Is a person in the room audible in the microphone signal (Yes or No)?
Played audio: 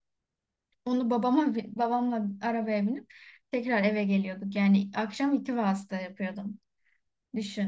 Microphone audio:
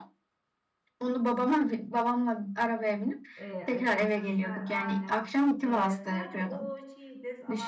Yes